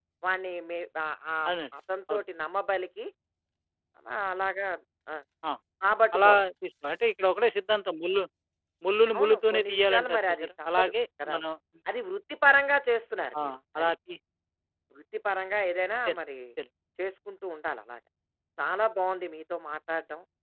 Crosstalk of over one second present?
Yes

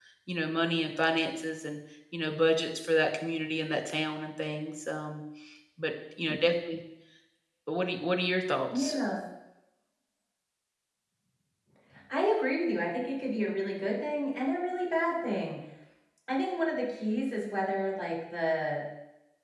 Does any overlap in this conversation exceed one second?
No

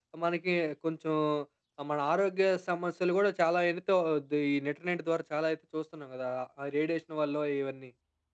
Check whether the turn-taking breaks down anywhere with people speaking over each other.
No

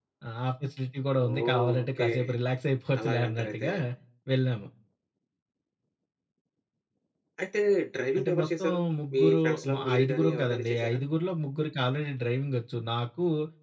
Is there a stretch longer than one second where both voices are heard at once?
Yes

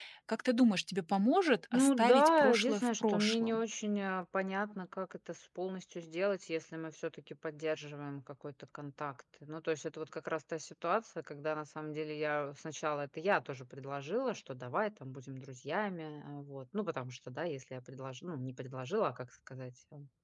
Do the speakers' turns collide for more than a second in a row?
Yes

